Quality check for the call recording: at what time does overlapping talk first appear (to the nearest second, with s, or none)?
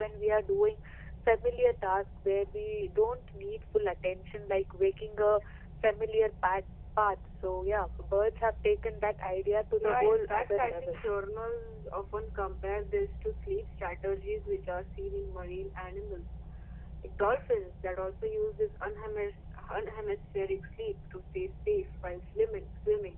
10 s